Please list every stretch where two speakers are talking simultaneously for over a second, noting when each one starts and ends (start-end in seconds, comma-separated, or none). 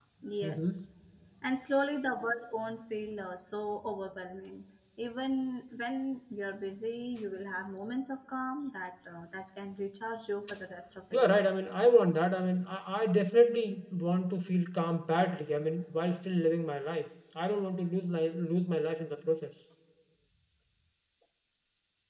none